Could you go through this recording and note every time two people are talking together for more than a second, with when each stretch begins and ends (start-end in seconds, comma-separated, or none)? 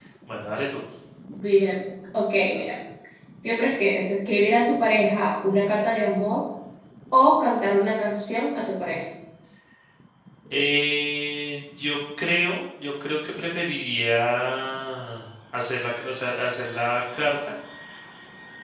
none